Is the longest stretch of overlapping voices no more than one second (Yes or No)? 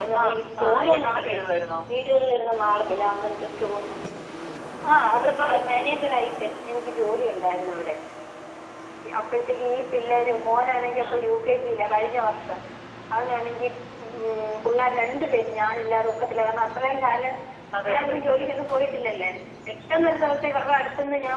No